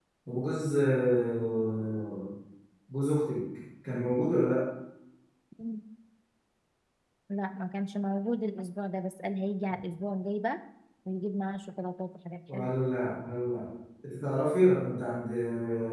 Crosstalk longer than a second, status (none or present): none